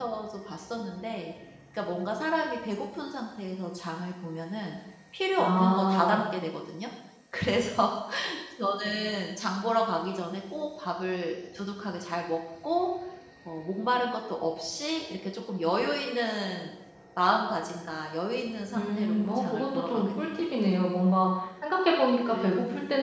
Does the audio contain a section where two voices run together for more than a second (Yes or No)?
Yes